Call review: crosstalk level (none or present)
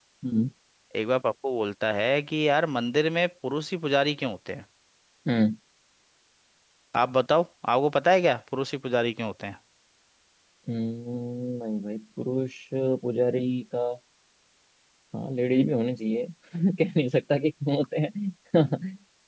none